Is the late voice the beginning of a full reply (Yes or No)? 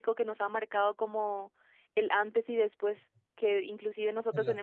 No